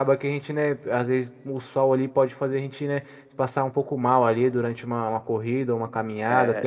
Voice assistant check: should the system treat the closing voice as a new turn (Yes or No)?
Yes